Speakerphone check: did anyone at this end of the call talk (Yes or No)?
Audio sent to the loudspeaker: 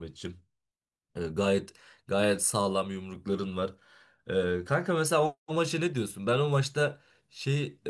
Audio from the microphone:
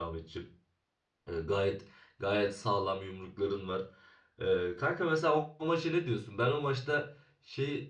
No